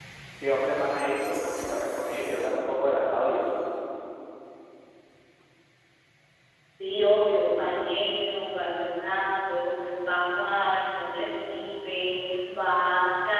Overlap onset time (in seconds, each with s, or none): none